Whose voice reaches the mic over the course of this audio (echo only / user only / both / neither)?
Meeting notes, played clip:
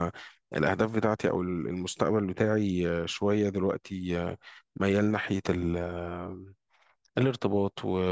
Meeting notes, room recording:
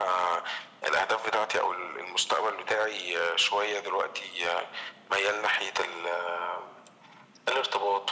echo only